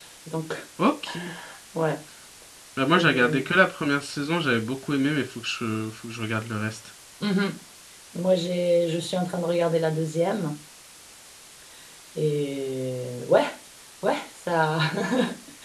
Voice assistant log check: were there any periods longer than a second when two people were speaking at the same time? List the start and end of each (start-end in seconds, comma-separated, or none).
none